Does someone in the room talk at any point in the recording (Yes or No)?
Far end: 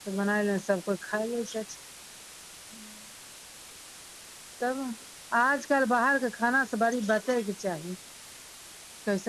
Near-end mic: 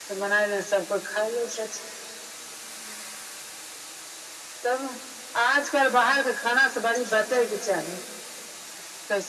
No